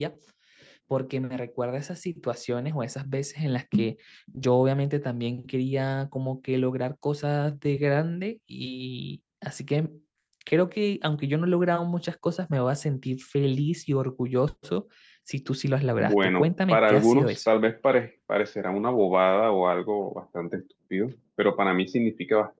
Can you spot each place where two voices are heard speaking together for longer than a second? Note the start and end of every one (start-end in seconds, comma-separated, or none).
16.0-17.4